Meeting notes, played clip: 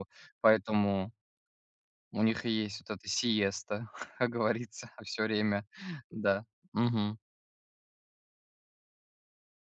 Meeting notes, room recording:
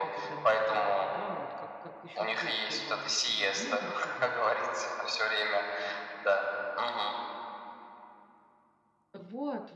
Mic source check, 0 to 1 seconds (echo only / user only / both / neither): both